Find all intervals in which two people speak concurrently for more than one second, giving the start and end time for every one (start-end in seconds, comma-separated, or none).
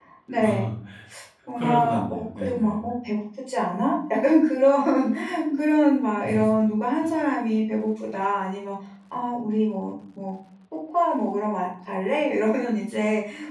1.6-2.9